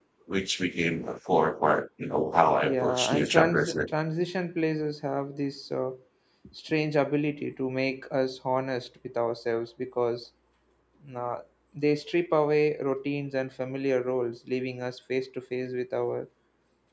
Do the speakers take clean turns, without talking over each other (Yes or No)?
No